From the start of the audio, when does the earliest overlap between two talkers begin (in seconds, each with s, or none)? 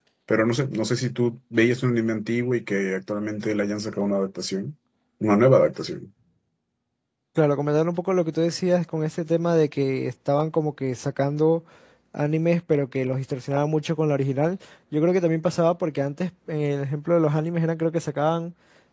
none